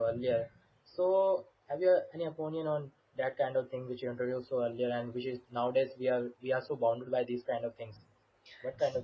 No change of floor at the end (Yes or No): No